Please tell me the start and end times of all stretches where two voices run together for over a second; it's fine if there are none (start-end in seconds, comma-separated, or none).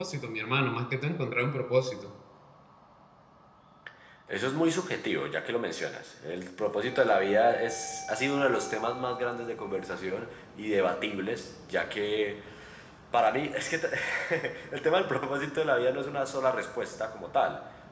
none